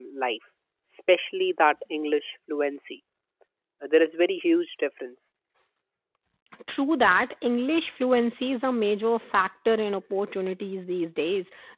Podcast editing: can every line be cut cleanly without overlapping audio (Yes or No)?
Yes